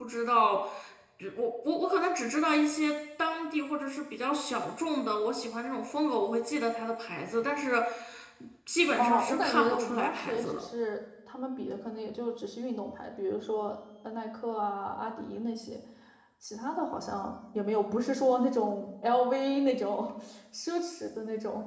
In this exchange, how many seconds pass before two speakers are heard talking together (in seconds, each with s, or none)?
9.0 s